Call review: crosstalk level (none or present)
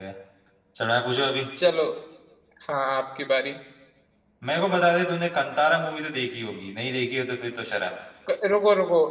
none